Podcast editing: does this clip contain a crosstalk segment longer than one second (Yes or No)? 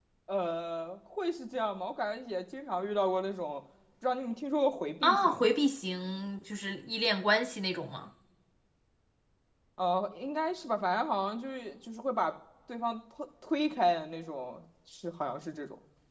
No